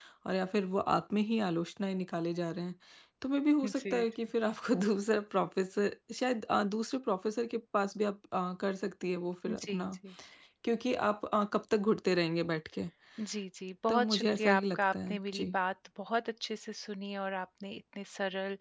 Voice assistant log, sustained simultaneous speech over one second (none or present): present